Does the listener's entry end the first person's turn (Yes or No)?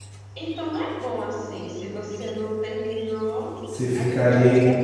Yes